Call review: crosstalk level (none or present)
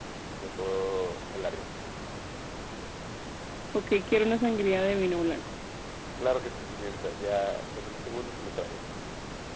none